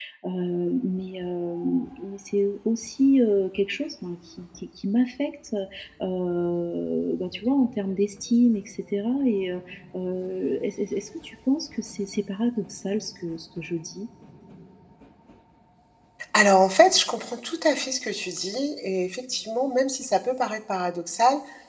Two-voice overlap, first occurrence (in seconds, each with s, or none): none